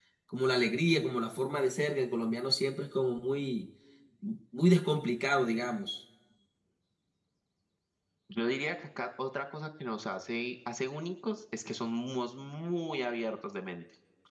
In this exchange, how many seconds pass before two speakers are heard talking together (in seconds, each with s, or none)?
none